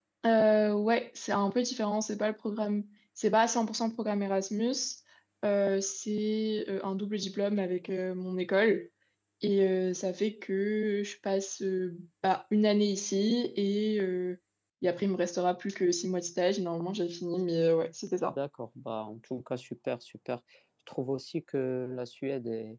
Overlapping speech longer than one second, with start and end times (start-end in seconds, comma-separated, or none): none